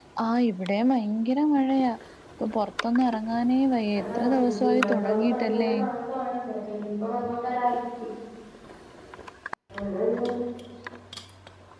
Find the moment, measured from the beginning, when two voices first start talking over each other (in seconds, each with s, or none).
4.0 s